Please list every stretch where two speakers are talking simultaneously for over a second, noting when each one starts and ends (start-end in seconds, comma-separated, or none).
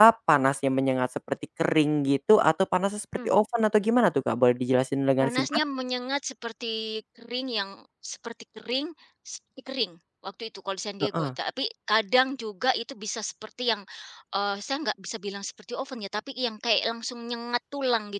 none